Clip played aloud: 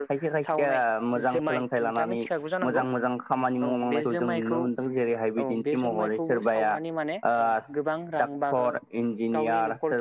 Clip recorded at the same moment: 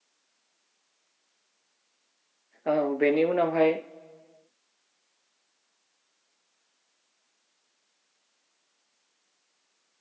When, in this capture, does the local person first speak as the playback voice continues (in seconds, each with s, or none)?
2.7 s